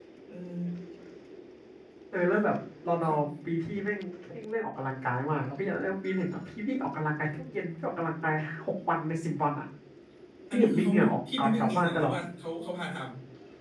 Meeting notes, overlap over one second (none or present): present